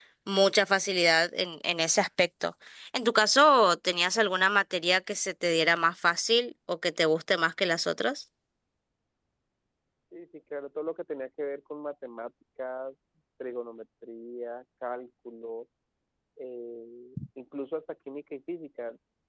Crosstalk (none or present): none